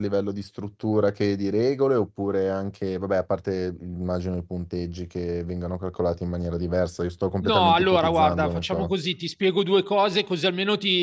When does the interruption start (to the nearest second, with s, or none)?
7 s